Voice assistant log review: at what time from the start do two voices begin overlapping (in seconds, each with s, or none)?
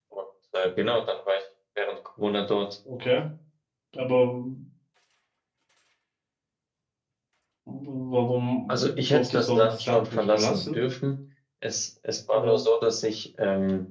8.7 s